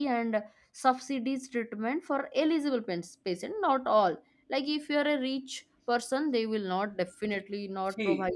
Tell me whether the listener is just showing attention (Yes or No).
No